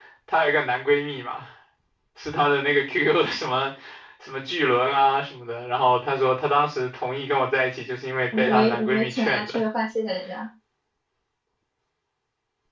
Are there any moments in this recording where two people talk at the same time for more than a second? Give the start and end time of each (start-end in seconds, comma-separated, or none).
8.3-9.6